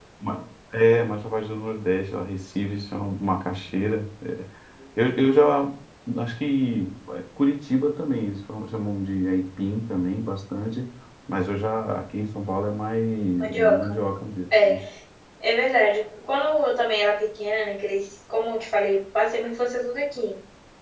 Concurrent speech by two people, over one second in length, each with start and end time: none

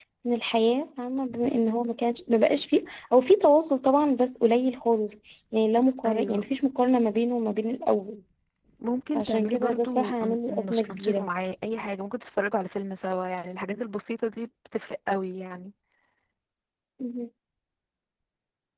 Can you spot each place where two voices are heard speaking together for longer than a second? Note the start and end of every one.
9.1-11.2

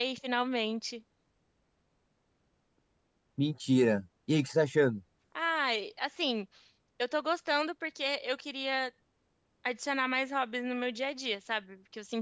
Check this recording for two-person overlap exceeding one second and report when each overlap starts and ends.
none

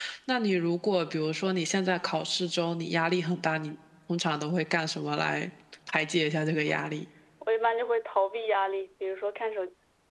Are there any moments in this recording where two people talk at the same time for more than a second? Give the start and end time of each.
none

